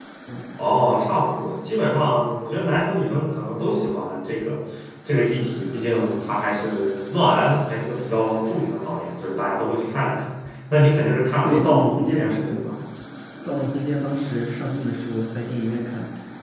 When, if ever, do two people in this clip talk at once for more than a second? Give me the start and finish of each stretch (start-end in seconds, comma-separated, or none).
11.4-12.8